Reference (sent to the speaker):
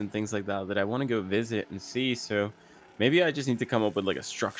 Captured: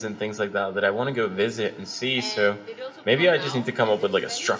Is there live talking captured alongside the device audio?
Yes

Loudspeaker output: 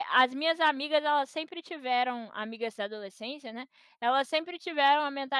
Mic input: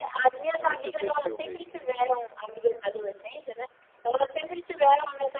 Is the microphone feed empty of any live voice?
No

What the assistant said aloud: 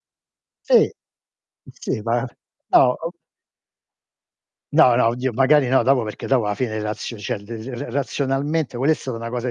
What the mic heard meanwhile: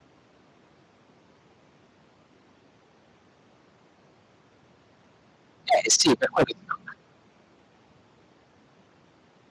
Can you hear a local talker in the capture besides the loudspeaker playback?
Yes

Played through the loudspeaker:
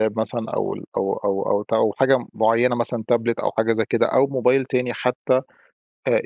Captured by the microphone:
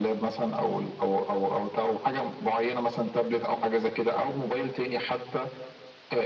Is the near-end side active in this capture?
No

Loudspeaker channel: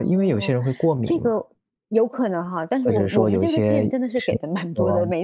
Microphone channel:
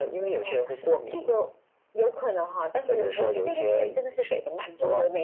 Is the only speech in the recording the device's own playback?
Yes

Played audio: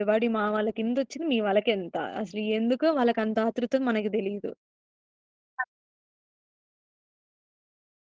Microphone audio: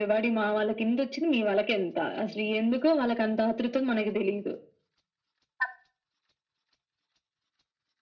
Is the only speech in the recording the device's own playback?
Yes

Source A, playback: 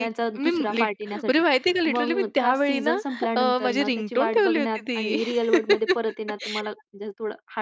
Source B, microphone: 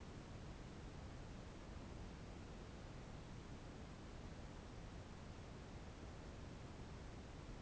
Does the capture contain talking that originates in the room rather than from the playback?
No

